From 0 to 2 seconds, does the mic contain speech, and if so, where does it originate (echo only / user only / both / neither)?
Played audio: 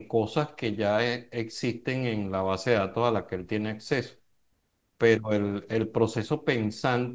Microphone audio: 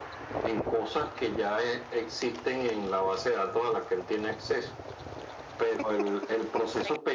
echo only